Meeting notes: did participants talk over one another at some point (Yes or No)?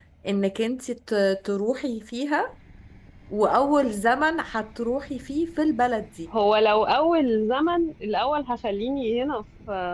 No